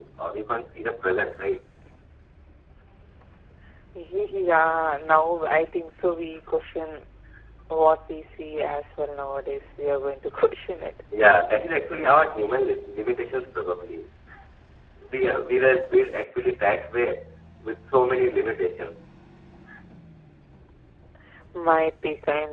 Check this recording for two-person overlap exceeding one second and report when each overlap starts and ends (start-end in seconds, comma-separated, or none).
none